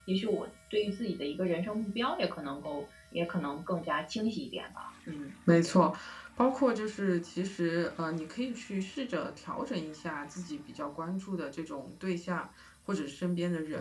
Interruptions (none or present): none